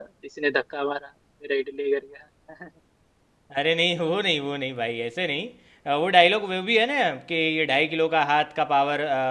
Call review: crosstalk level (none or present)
none